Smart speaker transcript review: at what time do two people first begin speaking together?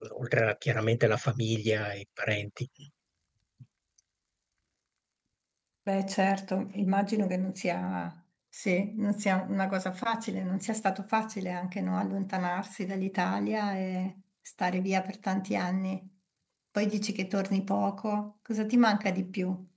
none

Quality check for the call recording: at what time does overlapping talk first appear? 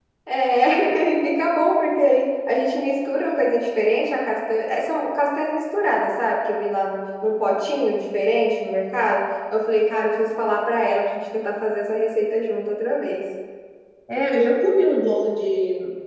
none

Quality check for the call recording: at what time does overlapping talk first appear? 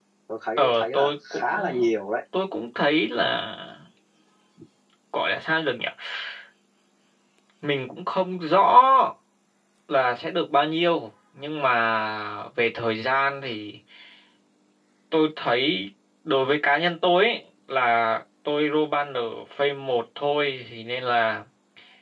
0.6 s

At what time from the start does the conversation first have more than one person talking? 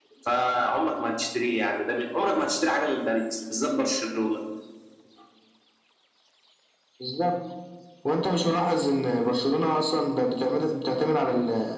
none

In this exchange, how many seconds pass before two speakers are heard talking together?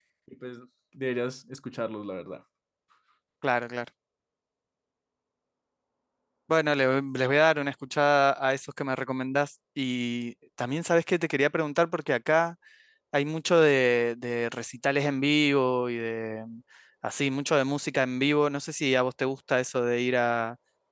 none

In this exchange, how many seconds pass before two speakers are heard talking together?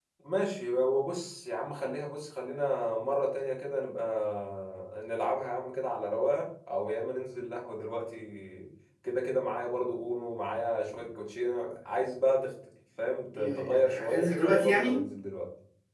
13.3 s

